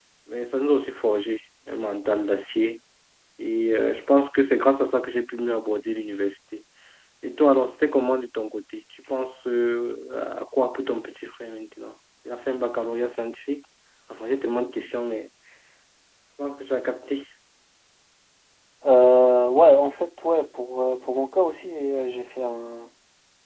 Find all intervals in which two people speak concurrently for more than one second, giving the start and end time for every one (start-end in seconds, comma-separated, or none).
none